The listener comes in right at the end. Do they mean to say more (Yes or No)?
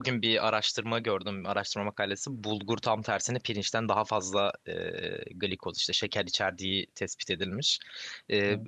No